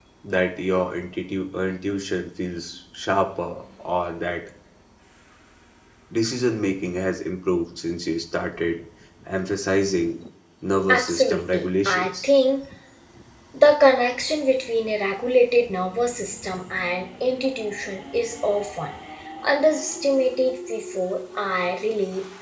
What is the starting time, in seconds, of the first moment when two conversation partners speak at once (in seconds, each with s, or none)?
10.9 s